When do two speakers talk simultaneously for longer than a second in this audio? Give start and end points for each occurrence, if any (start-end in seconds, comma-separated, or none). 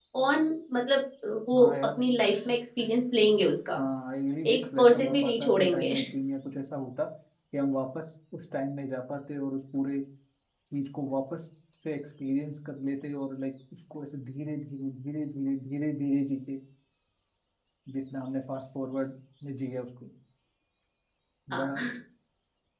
4.5-5.9